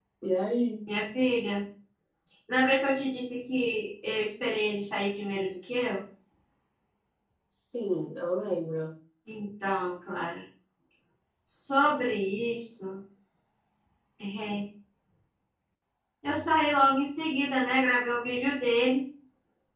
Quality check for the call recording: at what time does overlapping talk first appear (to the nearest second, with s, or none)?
none